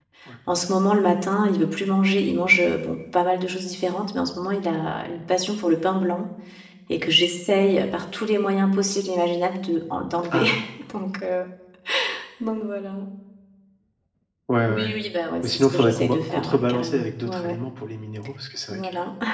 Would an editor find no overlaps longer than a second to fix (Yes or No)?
No